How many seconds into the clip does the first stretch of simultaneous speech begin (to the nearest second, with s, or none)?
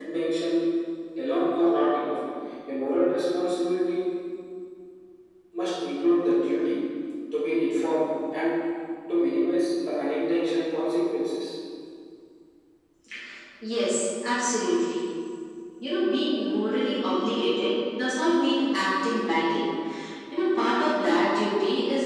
none